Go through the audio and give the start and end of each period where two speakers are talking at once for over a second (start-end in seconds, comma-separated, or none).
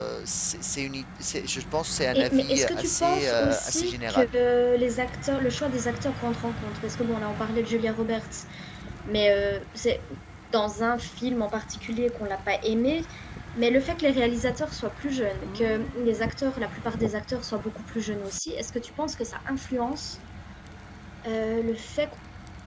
2.1-4.3